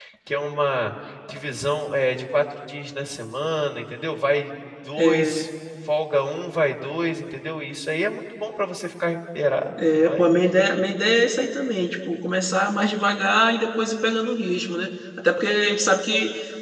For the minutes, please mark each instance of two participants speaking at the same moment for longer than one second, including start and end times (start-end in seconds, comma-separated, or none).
none